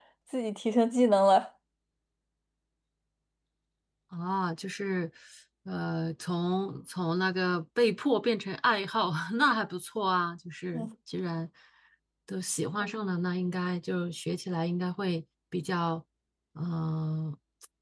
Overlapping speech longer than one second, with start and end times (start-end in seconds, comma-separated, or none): none